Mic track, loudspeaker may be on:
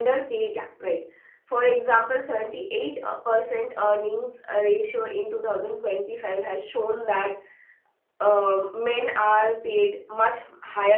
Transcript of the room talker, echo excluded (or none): none